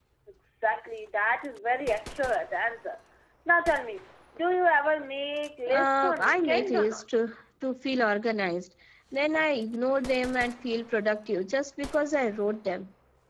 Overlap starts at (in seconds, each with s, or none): 5.7 s